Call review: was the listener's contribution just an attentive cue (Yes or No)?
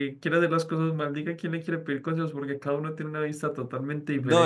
No